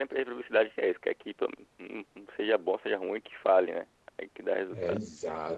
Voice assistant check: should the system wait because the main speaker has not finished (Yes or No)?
No